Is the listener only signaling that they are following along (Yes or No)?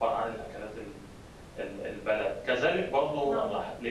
Yes